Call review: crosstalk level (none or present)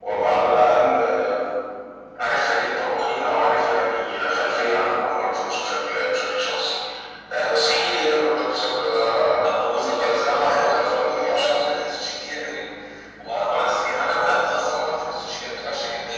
present